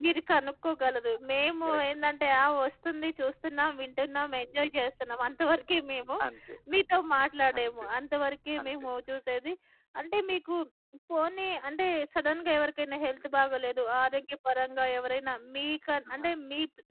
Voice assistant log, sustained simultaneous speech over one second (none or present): none